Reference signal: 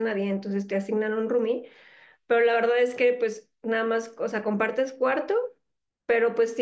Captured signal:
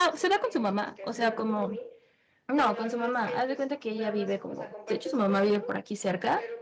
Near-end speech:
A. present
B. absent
A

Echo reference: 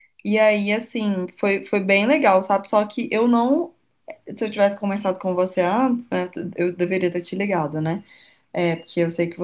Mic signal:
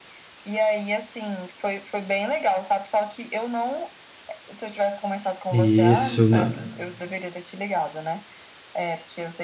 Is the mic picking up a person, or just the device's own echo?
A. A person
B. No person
A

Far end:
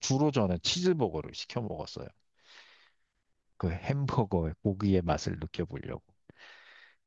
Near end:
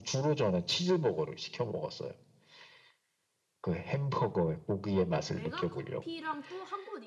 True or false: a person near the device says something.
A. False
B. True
B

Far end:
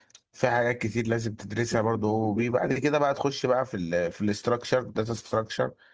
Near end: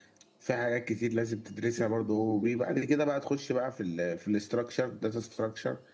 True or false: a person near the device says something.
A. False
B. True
A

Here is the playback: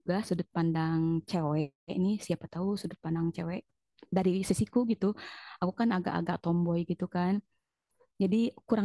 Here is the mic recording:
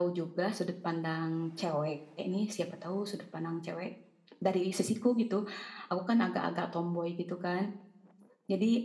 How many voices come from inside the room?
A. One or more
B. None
B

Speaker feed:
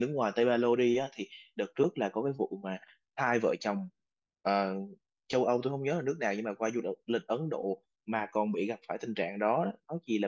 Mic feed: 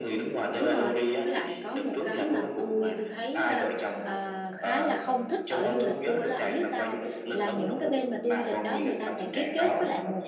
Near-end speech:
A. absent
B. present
B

